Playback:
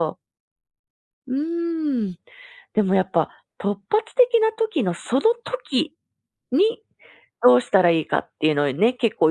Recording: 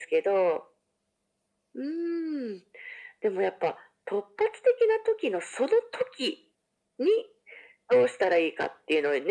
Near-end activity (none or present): none